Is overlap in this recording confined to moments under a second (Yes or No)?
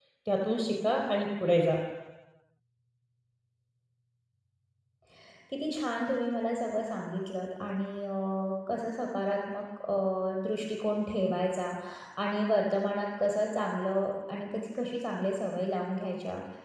Yes